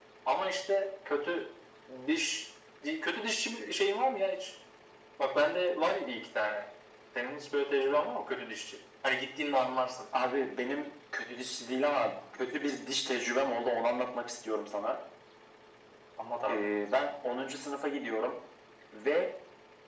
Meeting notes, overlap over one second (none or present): none